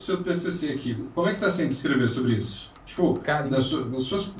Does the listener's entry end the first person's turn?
No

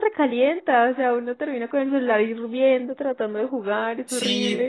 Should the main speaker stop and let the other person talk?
Yes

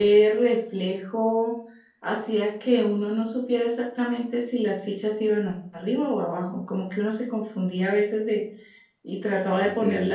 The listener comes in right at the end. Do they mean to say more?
No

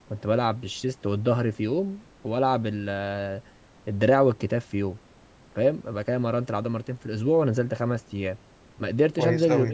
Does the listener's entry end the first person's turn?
No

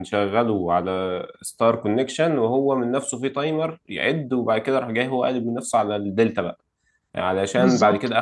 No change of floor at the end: Yes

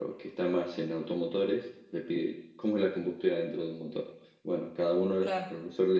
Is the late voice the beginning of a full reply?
No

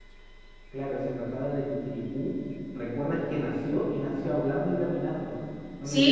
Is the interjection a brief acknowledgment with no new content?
No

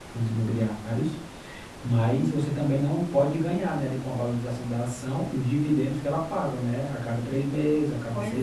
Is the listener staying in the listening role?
Yes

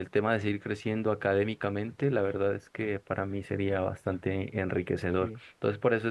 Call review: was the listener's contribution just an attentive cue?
Yes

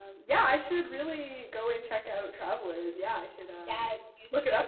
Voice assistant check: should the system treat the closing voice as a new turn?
Yes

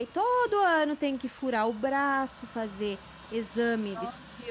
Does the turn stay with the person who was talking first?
Yes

